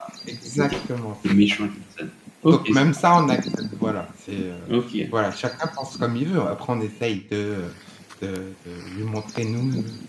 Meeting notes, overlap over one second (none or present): none